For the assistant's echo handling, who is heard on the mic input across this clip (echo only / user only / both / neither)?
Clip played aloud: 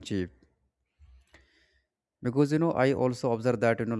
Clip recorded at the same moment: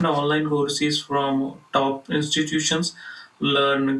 user only